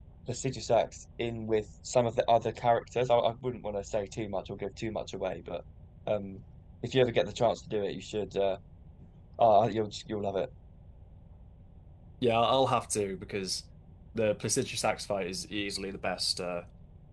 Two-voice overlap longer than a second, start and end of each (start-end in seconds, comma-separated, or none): none